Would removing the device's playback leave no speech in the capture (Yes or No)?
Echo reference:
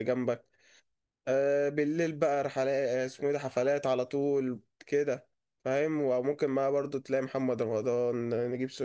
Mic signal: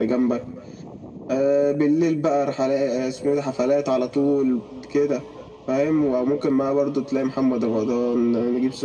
Yes